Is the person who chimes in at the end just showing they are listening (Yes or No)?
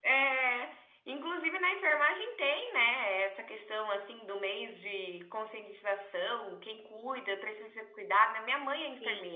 No